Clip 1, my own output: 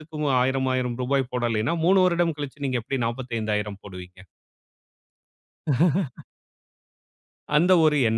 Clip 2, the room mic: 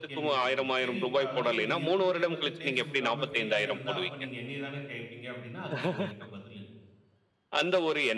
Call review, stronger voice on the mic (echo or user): echo